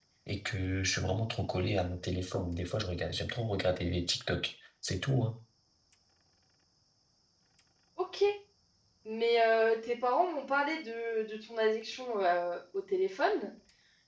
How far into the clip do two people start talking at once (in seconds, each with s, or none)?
none